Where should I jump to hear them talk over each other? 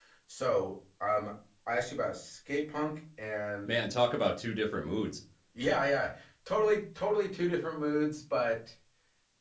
none

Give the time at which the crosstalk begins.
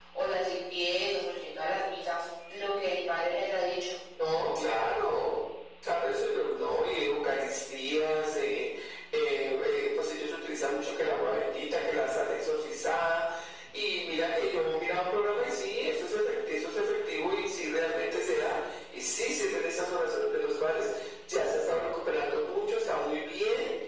none

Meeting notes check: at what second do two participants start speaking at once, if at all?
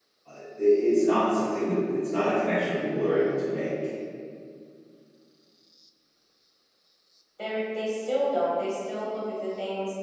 none

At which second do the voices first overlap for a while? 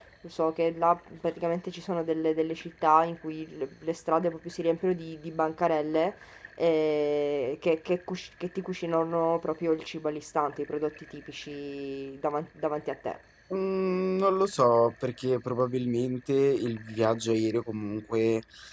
none

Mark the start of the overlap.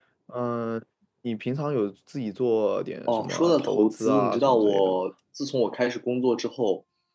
3.1 s

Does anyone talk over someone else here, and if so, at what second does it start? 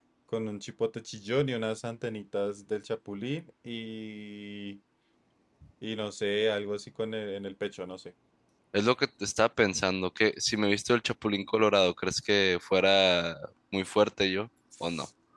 none

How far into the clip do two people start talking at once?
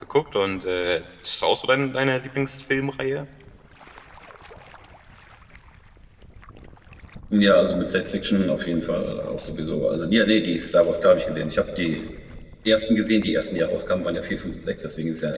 none

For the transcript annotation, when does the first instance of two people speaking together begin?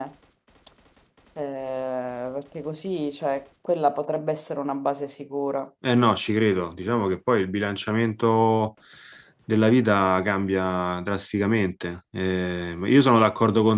none

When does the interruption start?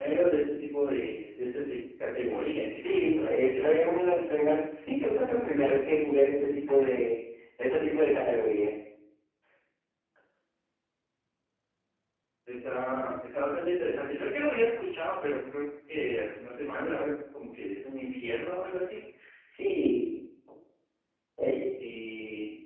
2.8 s

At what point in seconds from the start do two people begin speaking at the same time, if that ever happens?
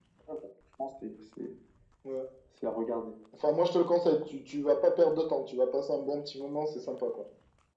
none

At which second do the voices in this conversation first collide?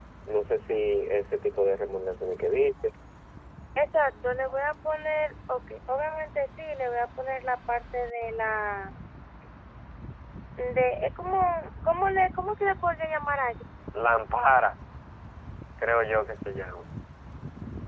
none

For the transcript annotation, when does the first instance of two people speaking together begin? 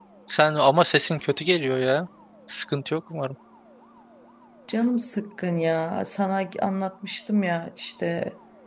none

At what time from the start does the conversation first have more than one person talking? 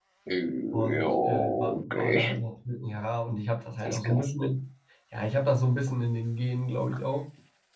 0.7 s

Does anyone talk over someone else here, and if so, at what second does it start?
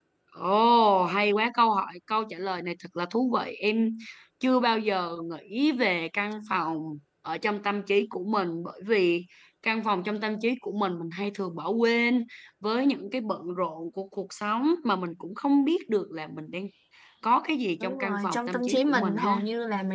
17.8 s

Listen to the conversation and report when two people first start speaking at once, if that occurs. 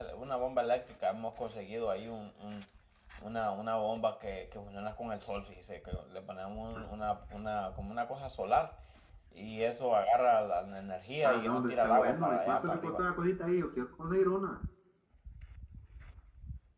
11.2 s

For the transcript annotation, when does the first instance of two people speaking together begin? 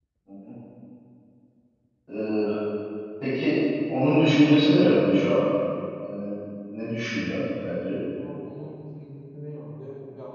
none

